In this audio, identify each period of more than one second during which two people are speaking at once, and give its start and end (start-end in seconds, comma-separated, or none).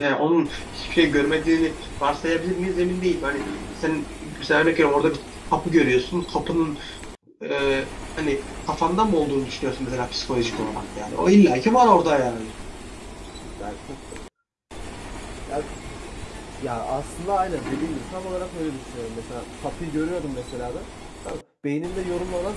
none